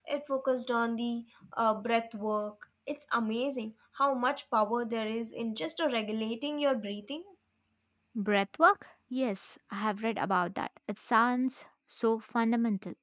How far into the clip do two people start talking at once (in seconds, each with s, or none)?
none